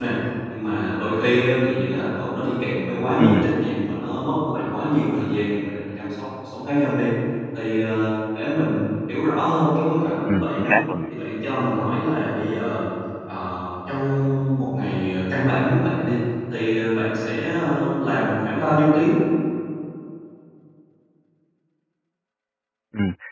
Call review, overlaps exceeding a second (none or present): none